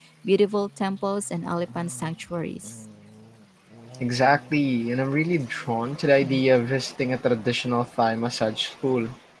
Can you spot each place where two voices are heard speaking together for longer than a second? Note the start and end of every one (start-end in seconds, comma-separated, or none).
none